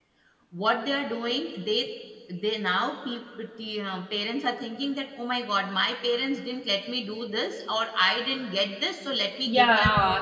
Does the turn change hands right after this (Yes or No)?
Yes